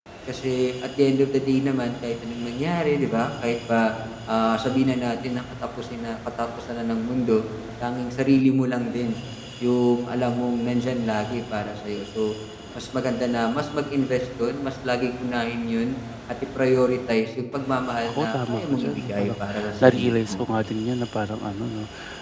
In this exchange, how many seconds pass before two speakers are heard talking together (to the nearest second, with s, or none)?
18 s